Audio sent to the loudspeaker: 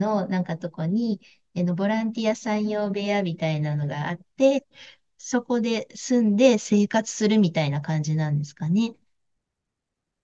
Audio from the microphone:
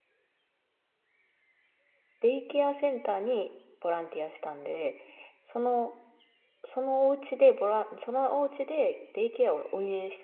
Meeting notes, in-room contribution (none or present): present